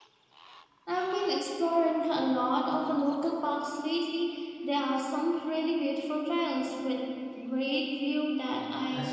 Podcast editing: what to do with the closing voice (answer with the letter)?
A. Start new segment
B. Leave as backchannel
A